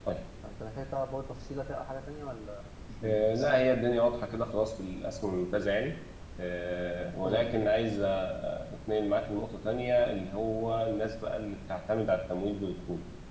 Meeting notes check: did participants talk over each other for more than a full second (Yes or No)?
No